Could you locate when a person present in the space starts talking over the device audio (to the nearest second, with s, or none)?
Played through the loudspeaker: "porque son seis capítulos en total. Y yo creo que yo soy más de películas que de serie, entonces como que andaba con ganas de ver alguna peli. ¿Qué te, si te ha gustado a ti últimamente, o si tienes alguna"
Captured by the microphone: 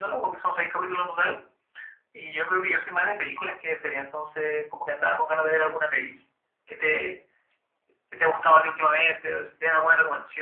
none